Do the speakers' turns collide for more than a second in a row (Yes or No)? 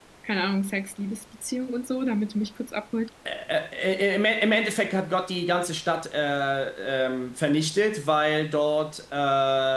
No